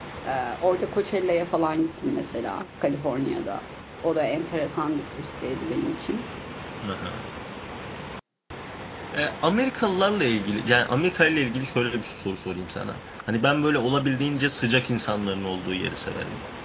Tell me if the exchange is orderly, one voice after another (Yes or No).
Yes